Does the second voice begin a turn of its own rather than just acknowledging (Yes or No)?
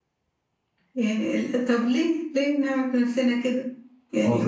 No